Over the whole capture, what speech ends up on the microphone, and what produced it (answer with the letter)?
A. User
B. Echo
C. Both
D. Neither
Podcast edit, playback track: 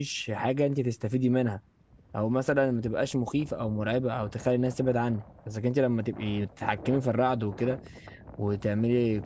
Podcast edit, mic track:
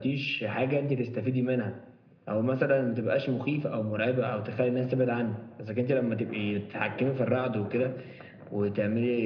B